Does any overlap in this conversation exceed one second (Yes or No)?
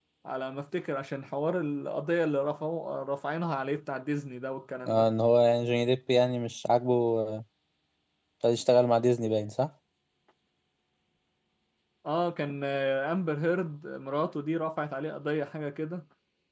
No